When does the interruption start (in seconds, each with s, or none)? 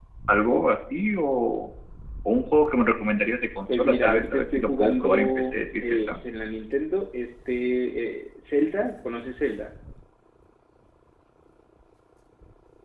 3.7 s